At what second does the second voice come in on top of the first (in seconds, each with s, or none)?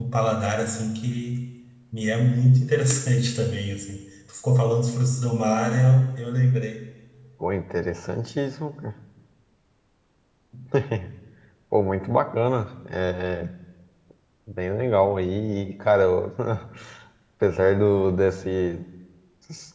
none